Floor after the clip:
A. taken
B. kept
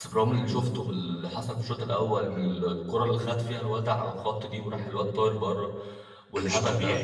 B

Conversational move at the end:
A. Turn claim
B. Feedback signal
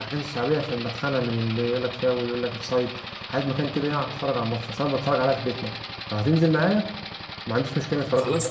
A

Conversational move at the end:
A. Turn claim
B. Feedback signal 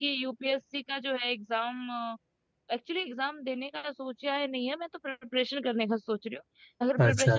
B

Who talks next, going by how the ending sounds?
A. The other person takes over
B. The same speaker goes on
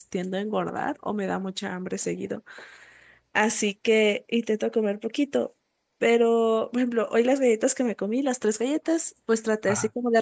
B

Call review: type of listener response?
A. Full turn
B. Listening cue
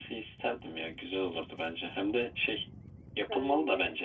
B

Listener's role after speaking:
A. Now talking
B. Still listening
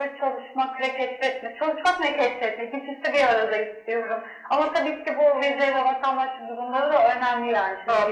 A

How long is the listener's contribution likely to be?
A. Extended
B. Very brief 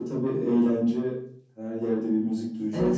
A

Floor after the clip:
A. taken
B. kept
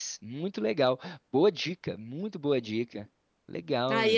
A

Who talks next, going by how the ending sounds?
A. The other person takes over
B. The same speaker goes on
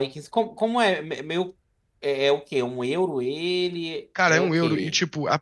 A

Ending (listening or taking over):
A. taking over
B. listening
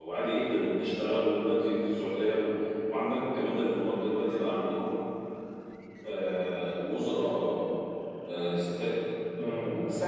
A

